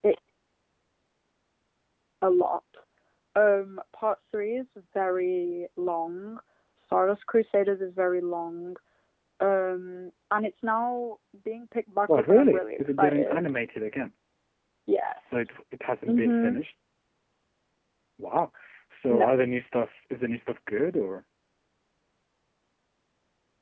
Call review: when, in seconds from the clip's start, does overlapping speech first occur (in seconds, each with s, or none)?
12.1 s